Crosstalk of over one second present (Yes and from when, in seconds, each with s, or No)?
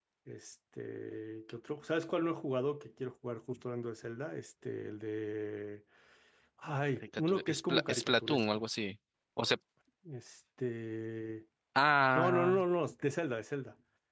Yes, from 7.0 s